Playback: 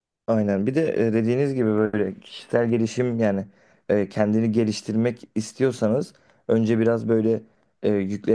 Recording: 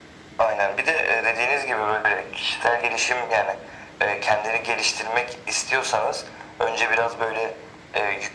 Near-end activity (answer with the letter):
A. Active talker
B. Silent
B